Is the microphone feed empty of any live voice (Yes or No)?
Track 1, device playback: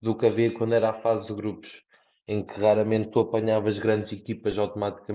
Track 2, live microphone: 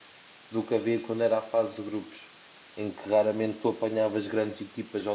Yes